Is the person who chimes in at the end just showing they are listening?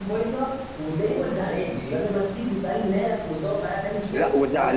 No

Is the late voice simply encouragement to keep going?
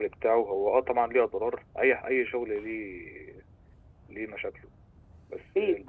Yes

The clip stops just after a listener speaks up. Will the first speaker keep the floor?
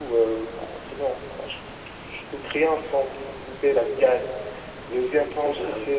Yes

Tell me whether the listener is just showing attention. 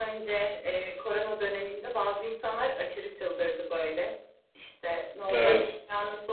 Yes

